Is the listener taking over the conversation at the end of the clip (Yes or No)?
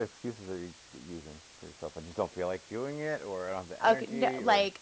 Yes